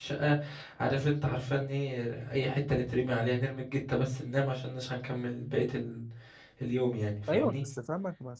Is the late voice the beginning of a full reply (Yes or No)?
Yes